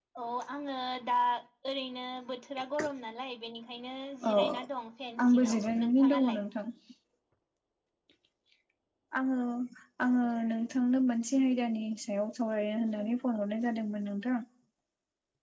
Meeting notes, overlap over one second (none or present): present